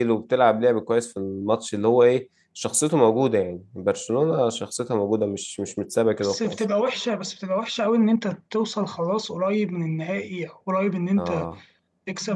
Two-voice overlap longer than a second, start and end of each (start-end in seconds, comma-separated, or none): none